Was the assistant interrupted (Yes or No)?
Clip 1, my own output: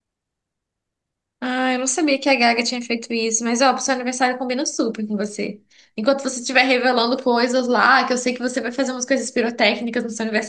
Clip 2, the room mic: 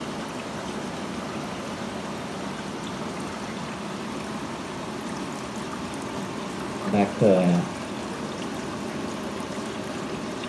Yes